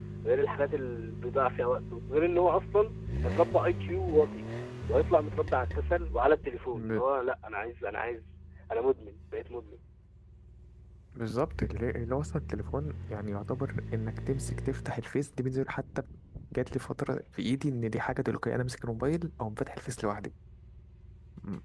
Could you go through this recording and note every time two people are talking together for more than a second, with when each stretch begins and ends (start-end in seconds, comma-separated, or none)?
none